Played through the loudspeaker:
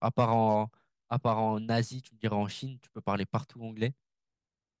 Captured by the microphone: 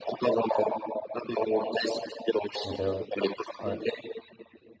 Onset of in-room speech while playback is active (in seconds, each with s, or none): 2.6 s